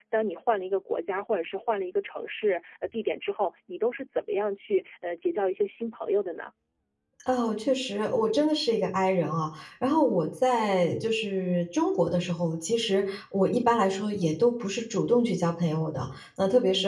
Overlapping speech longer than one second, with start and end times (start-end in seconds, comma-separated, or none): none